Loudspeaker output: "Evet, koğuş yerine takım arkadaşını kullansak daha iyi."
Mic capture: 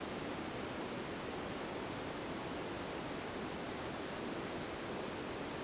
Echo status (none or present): none